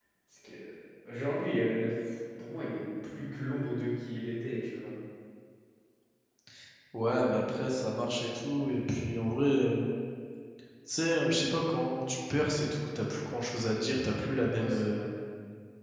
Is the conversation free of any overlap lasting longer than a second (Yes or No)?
Yes